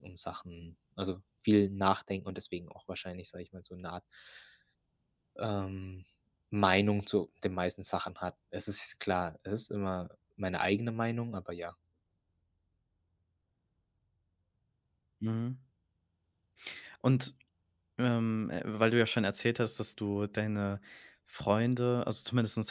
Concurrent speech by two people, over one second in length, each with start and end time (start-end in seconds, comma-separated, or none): none